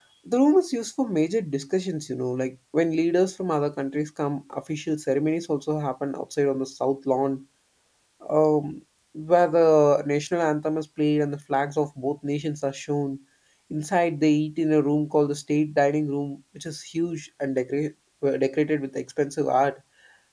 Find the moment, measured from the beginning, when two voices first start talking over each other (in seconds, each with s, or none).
none